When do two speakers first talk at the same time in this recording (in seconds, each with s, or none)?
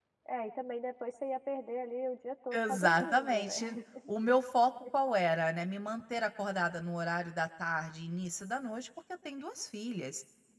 2.5 s